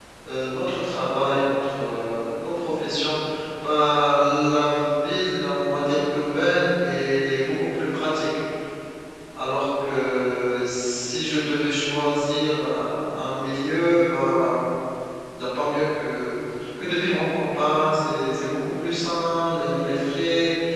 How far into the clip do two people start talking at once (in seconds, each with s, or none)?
none